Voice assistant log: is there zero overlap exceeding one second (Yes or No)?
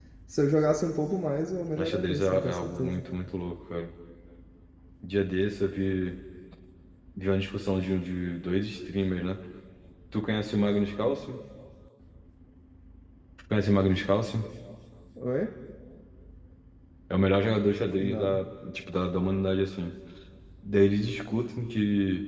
No